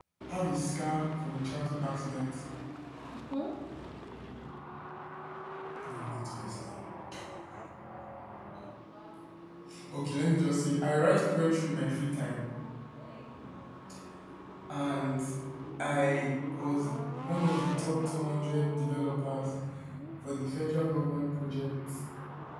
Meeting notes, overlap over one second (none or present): none